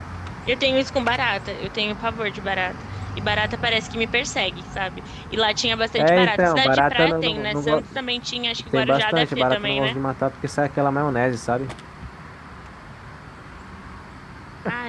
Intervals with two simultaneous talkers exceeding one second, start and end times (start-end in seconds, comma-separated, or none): 6.0-7.8, 8.7-9.9